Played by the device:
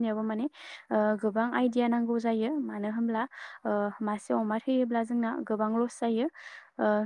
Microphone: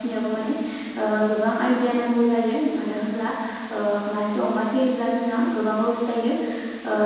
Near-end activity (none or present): none